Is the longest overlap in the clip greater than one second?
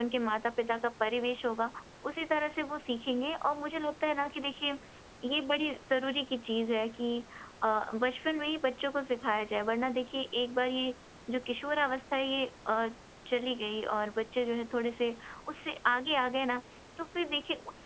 No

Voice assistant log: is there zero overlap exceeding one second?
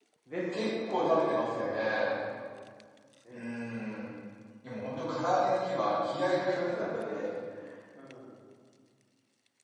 No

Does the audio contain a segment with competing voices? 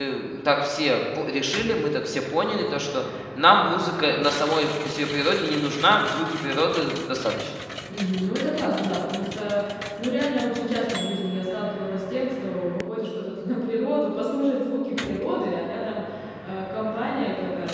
No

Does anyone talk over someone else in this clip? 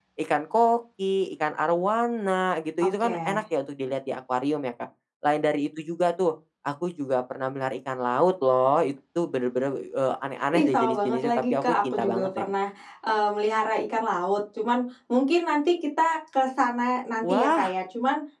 Yes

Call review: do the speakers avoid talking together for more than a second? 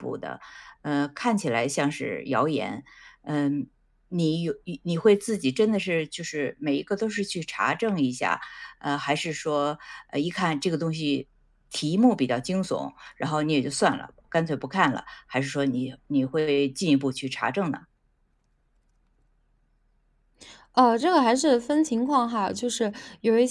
Yes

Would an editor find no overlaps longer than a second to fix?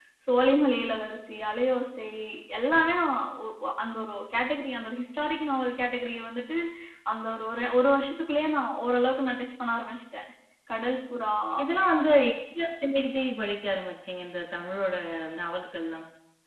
Yes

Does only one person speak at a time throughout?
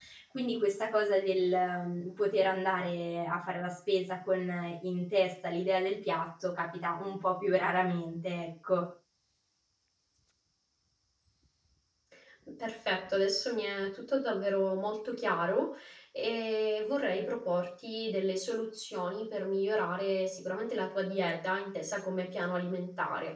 Yes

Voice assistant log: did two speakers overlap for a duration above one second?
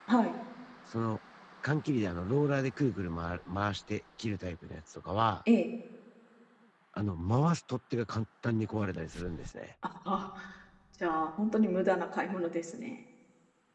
No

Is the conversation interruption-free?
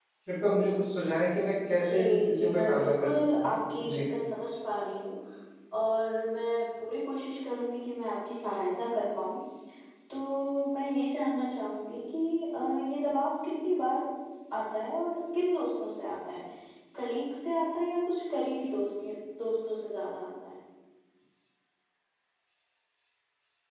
No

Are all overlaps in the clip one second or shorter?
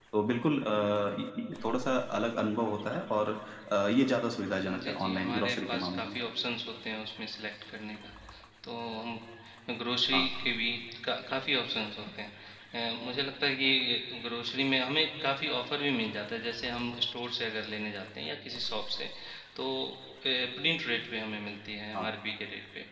No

